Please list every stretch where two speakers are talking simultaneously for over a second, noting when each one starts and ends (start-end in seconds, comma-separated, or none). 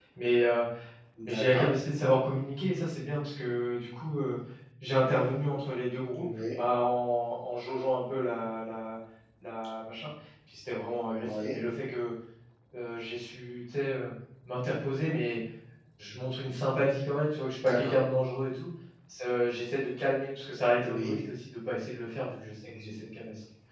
none